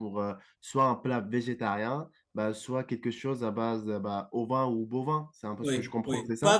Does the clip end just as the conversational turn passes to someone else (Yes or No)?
Yes